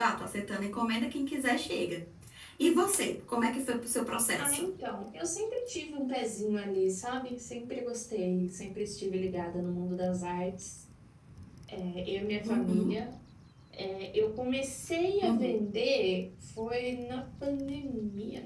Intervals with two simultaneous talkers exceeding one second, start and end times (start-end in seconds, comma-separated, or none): none